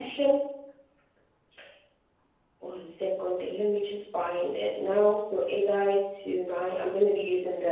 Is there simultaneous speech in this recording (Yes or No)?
No